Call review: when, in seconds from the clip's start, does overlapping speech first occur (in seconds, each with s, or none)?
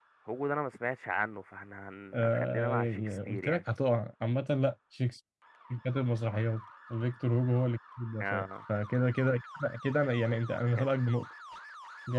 2.1 s